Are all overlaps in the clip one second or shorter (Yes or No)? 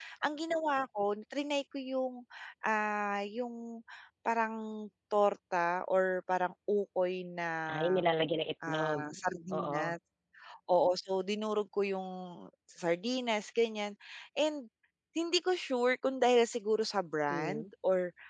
Yes